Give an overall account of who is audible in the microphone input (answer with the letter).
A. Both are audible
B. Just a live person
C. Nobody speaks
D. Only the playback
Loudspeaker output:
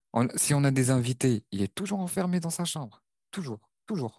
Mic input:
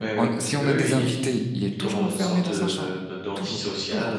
A